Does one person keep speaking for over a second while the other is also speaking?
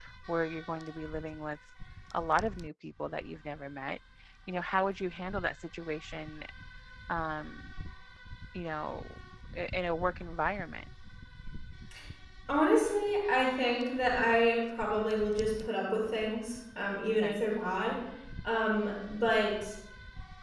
No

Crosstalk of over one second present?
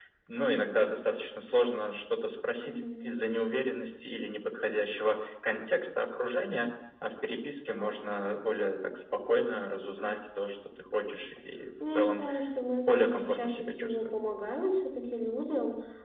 Yes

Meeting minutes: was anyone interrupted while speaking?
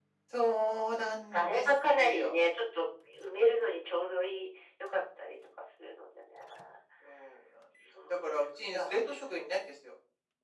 Yes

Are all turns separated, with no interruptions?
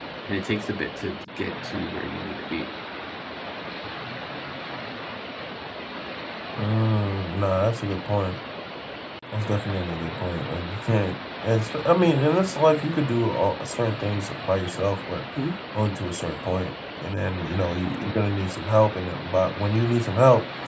Yes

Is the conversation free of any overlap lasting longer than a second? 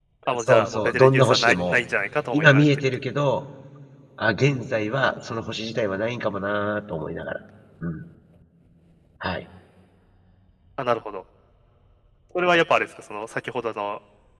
No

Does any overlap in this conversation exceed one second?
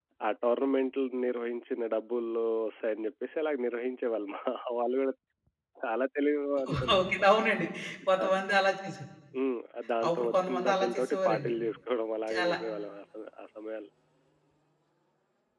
Yes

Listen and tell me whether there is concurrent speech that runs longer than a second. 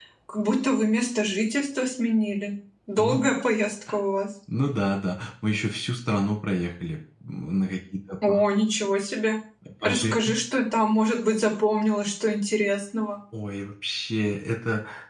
No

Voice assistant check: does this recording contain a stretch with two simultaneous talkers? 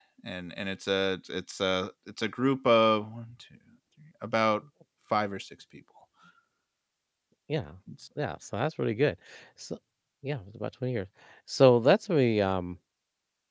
No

